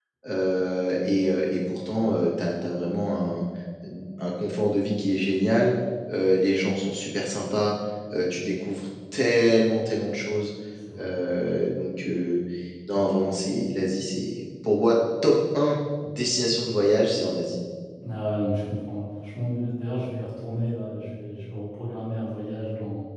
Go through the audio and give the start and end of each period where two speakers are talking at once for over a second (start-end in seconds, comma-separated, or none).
none